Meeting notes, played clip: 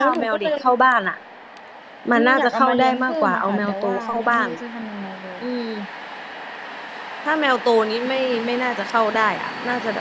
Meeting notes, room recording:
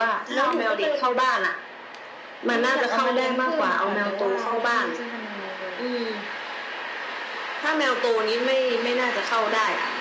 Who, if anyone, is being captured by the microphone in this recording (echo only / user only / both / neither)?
echo only